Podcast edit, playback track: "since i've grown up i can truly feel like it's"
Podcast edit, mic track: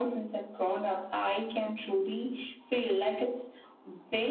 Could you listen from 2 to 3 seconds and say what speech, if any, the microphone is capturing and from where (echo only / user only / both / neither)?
echo only